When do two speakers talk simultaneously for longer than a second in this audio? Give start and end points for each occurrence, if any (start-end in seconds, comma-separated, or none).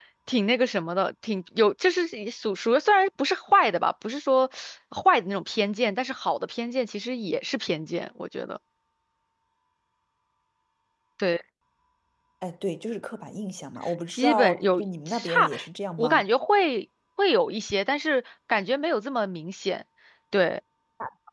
14.1-15.5